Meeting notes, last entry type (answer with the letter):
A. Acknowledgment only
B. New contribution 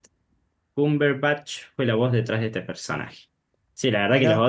A